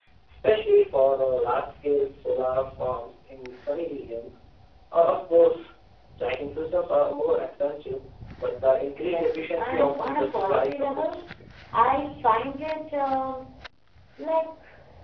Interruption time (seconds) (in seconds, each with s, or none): 9.0 s